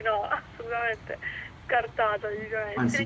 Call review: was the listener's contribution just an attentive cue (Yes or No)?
No